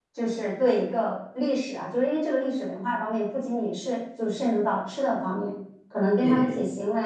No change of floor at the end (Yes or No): Yes